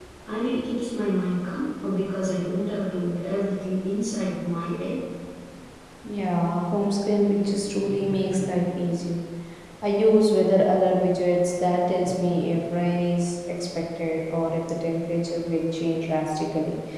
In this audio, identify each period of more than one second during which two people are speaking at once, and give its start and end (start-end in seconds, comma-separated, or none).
none